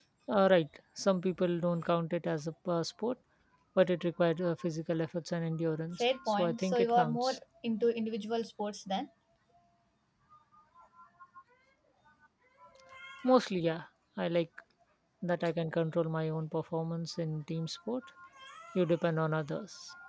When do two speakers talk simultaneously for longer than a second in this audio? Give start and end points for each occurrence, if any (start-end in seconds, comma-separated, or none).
6.0-7.4